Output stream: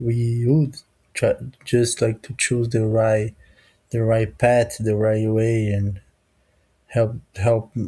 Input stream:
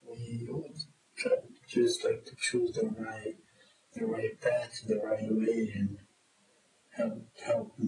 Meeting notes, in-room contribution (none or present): none